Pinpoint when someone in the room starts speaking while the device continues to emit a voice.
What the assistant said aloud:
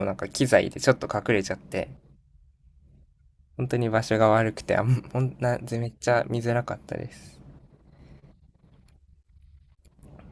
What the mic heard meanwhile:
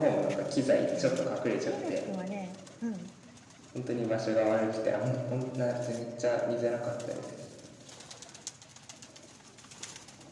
0.7 s

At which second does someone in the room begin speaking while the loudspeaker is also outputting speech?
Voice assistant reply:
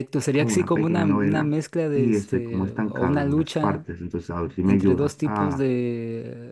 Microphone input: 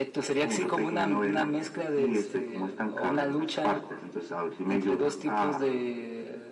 none

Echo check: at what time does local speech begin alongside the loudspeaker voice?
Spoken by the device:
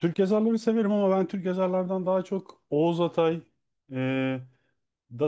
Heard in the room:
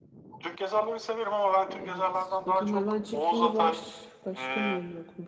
1.7 s

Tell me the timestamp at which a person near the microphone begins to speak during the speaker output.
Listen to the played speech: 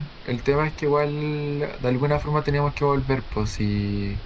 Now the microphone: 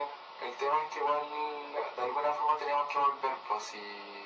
none

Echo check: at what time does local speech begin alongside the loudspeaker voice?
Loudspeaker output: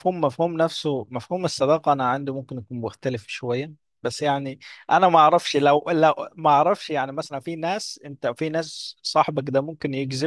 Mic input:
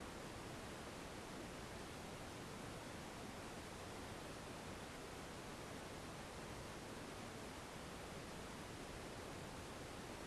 none

